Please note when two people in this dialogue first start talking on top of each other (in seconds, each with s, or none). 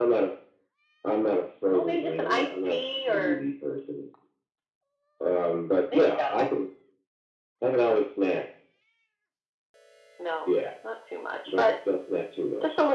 1.7 s